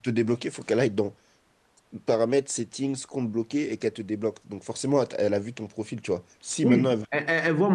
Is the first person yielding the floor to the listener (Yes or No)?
Yes